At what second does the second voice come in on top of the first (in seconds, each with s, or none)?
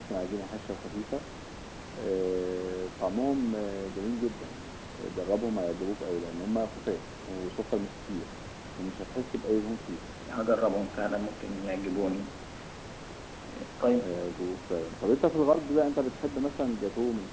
none